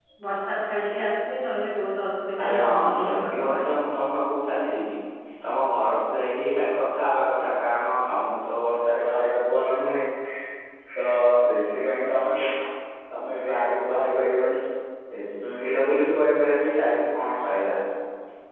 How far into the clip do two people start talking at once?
2.4 s

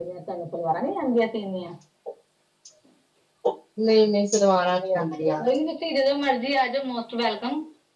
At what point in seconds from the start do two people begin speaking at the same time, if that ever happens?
none

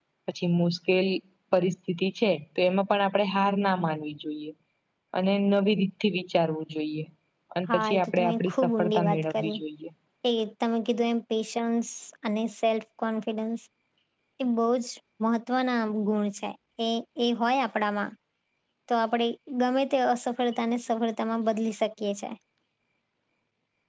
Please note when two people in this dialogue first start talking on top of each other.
7.7 s

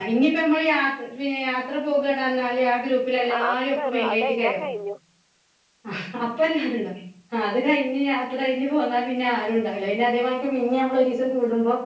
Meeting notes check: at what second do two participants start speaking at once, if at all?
3.2 s

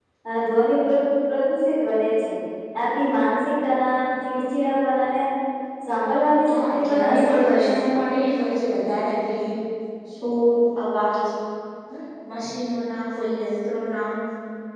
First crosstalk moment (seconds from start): 6.5 s

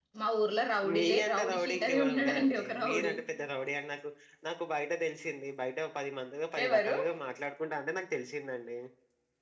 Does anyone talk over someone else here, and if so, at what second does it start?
0.9 s

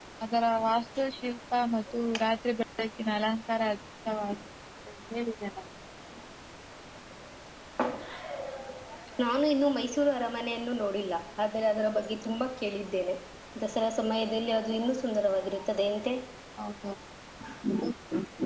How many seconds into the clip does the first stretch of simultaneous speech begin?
none

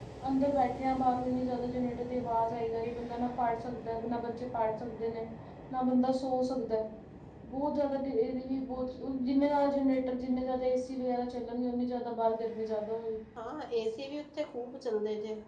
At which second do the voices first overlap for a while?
none

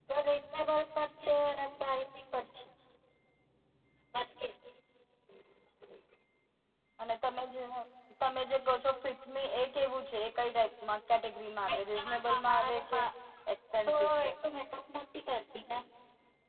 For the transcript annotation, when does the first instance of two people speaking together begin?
11.7 s

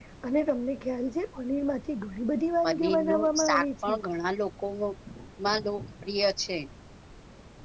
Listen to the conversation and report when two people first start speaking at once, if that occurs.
2.6 s

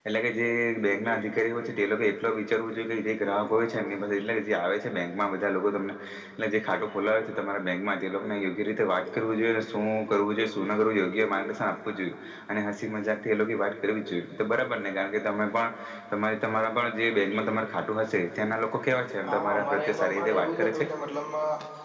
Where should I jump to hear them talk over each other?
19.2 s

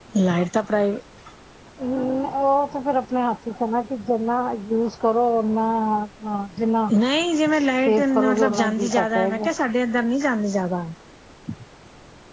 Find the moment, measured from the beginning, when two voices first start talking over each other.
7.6 s

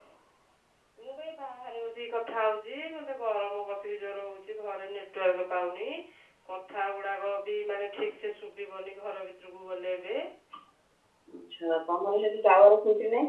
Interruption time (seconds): none

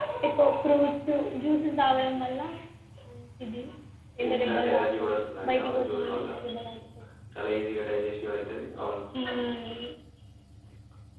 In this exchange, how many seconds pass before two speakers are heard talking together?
4.3 s

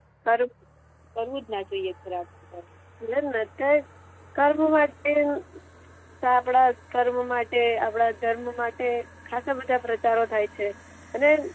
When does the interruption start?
none

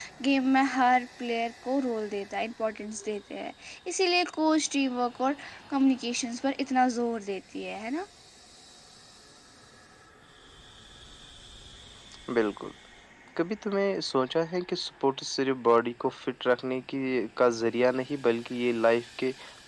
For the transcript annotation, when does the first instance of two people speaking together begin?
none

